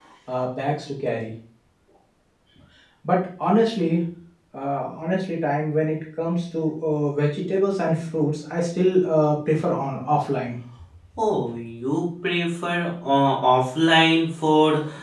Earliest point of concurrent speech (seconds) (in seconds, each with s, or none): none